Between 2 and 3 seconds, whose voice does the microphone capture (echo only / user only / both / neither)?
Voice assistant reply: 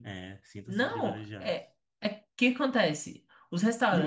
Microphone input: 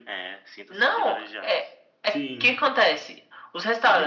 both